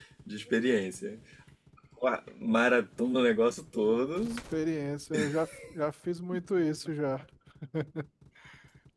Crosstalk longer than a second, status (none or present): none